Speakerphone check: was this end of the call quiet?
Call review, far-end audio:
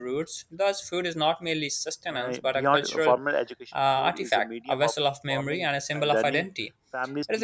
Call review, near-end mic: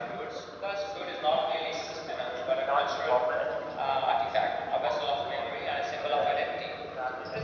Yes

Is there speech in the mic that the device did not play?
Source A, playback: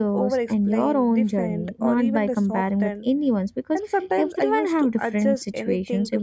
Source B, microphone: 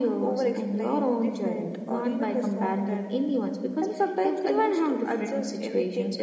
No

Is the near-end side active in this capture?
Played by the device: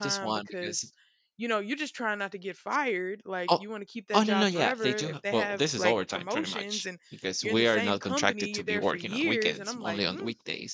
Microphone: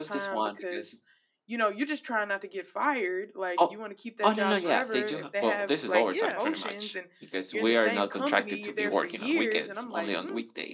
Yes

